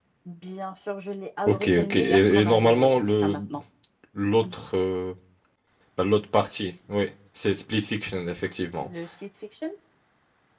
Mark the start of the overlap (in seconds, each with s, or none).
1.5 s